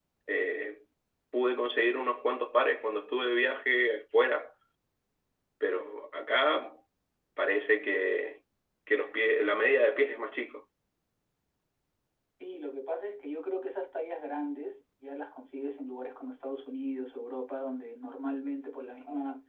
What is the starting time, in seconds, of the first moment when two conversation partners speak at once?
none

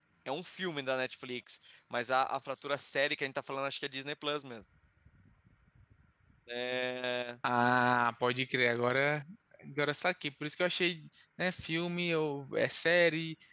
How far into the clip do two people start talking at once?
none

